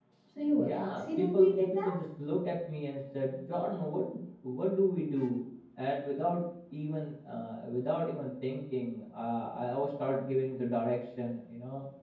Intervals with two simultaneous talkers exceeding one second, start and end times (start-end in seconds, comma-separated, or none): 0.6-1.9